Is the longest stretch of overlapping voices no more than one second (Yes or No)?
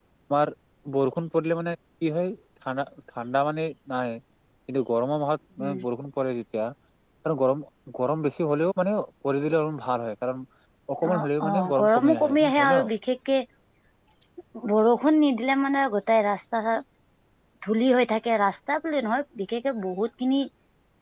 No